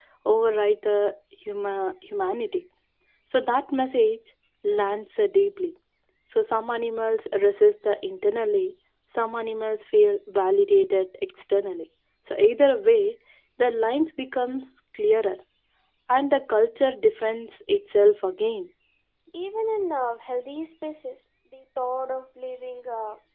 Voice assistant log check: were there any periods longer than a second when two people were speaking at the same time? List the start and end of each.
none

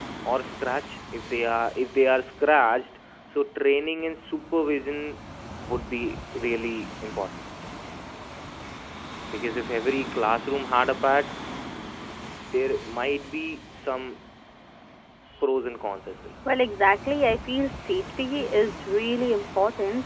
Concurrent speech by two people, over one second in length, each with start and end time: none

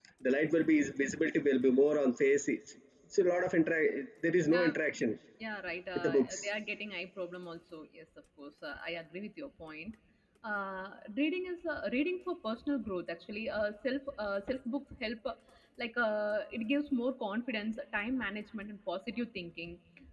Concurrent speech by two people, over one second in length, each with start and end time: none

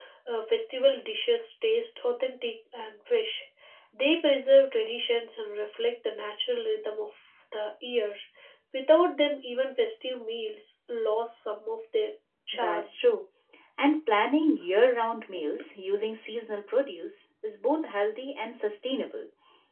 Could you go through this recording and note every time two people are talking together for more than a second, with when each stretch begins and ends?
none

